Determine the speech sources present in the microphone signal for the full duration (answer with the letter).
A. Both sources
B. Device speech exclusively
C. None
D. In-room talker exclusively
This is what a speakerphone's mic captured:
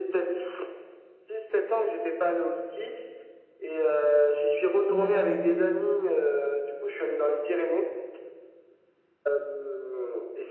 A